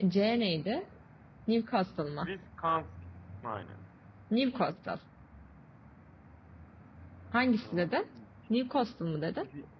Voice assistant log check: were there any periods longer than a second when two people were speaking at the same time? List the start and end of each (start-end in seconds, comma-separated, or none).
none